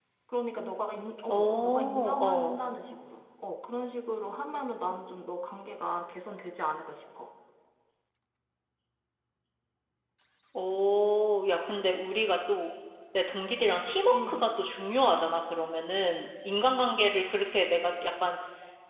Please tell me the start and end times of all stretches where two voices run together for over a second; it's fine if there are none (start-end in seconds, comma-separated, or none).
1.3-2.6